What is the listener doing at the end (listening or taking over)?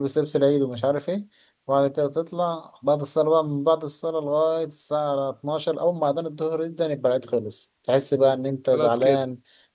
listening